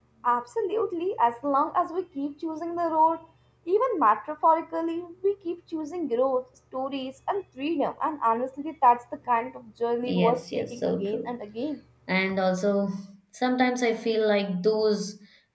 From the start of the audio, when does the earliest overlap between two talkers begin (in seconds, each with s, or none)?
10.0 s